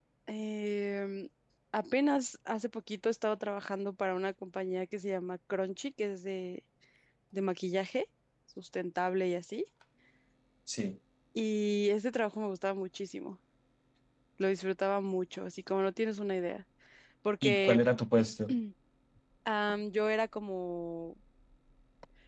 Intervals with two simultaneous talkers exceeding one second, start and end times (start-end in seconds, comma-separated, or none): none